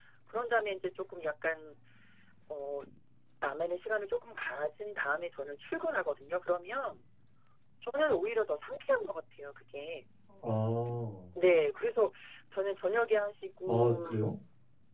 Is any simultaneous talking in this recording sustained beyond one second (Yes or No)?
No